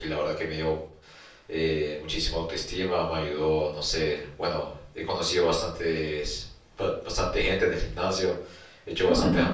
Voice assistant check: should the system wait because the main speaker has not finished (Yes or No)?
Yes